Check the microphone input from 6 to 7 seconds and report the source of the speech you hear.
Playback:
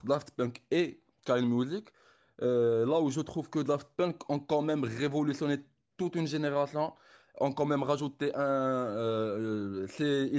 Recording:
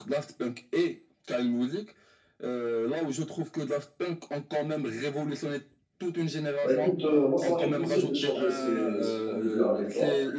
both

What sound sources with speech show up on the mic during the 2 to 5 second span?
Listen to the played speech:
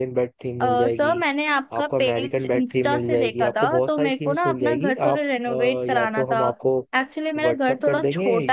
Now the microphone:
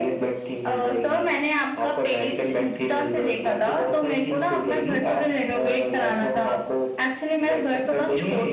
echo only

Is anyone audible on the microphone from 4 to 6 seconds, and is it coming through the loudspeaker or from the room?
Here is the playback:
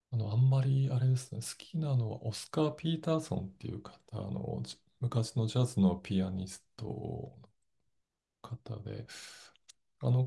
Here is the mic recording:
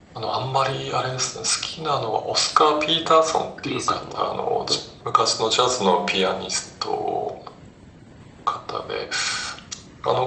both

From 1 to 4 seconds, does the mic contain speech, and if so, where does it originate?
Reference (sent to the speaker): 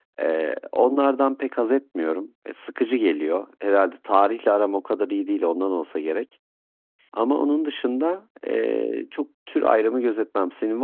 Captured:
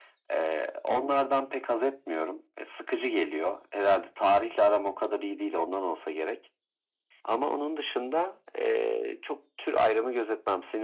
echo only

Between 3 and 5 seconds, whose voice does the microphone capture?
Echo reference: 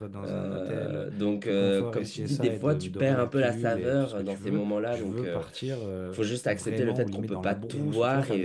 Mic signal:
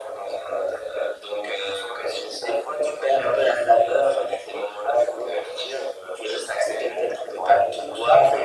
echo only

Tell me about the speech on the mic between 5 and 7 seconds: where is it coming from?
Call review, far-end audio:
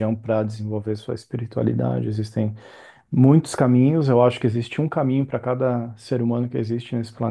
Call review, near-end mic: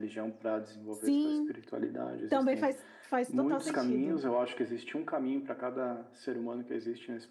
echo only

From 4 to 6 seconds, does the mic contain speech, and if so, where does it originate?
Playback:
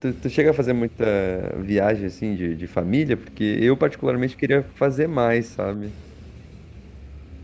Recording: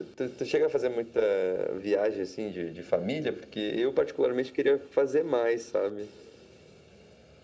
echo only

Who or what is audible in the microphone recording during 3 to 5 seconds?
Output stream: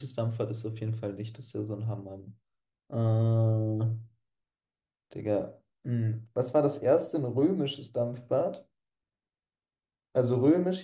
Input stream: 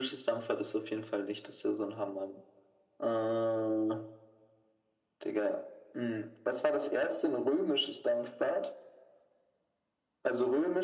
echo only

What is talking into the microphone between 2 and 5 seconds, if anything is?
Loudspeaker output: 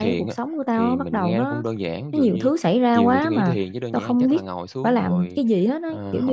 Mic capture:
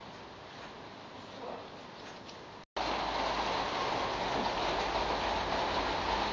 neither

